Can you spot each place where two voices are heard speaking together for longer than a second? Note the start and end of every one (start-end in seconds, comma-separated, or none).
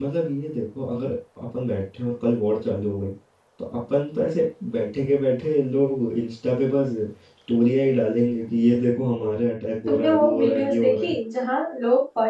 9.9-11.1